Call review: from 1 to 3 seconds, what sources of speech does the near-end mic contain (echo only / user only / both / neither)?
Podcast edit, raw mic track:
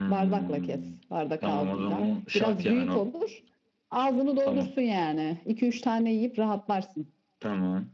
echo only